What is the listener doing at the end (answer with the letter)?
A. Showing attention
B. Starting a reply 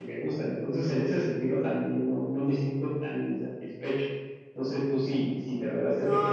B